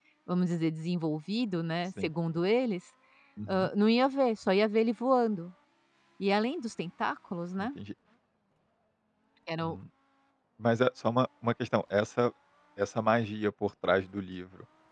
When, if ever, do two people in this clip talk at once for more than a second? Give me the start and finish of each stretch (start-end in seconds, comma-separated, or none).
none